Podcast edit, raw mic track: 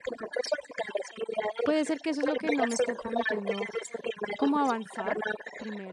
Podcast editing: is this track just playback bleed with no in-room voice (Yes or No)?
No